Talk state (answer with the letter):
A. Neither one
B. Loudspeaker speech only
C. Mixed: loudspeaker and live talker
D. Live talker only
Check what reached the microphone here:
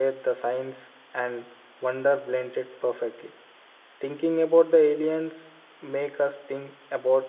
D